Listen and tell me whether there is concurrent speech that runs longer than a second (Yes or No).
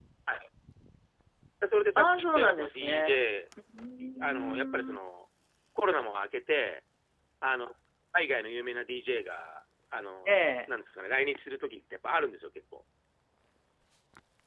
Yes